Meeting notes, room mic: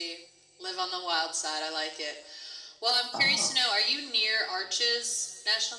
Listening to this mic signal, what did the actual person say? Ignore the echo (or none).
Oh,